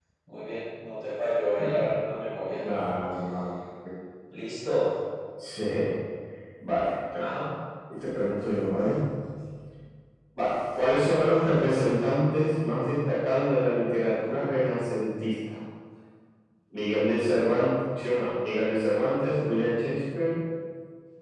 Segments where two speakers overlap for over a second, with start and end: none

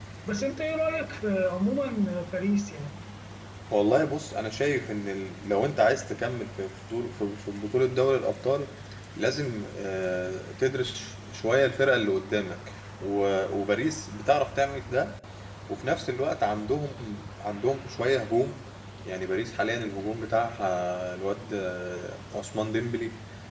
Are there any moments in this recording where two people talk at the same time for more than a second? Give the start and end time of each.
none

